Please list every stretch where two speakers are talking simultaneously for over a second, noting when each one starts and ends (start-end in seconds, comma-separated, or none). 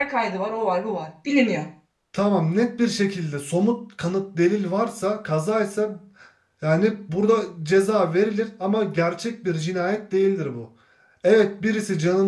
none